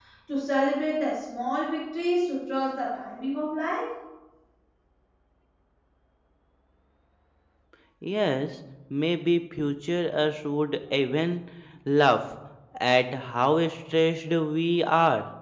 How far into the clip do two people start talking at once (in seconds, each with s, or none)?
none